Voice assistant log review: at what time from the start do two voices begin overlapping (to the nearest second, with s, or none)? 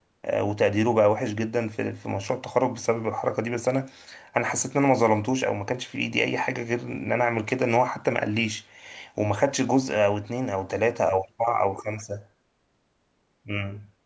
none